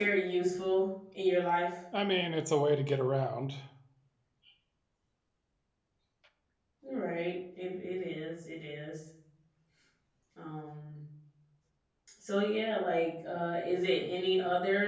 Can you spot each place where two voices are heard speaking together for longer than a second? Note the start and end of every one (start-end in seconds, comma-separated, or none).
none